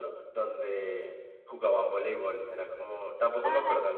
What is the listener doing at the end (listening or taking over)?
taking over